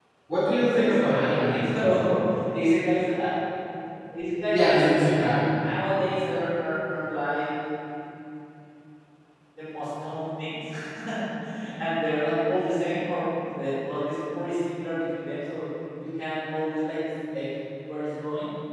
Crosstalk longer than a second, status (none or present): present